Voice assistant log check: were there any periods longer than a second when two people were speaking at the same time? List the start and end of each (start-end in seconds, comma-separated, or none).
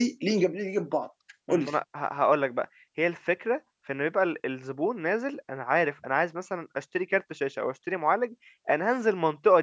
none